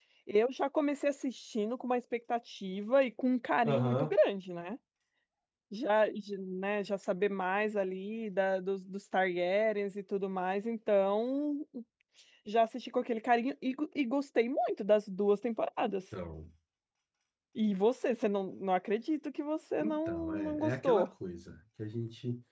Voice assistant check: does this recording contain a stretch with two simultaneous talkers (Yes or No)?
Yes